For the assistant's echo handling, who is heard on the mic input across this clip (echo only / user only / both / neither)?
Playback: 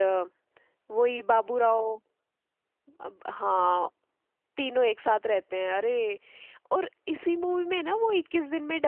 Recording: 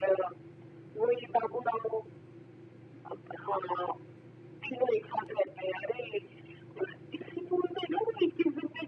echo only